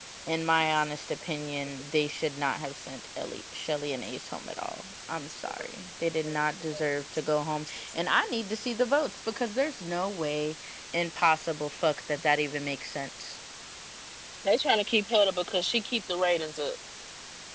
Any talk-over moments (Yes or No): No